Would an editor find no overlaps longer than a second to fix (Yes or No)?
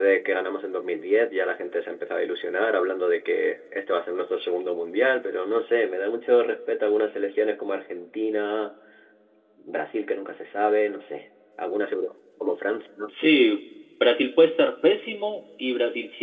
Yes